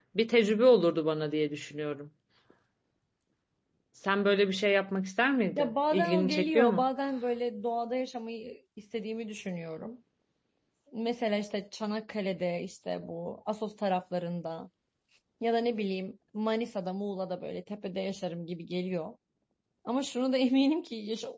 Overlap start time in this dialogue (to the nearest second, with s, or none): 6 s